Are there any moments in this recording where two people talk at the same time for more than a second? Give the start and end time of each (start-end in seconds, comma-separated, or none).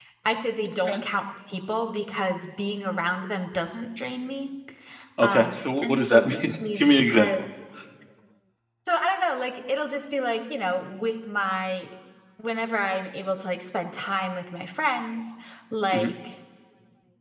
5.2-7.4